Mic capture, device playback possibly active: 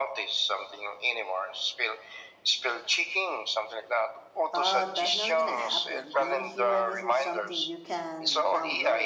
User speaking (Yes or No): Yes